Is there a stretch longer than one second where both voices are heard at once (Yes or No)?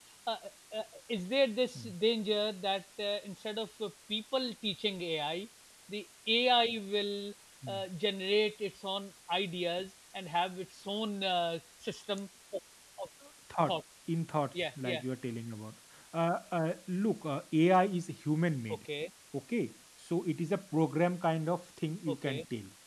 No